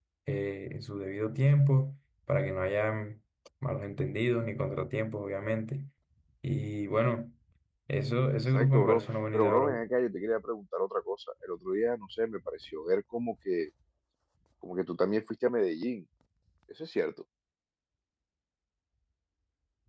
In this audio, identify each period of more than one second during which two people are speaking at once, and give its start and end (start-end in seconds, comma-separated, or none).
8.5-9.8